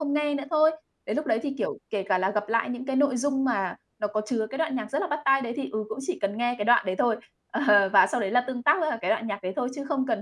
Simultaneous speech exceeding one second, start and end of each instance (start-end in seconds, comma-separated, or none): none